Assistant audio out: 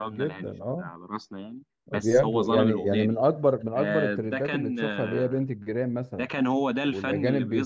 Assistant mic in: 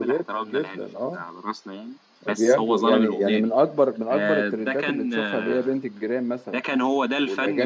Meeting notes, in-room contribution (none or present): none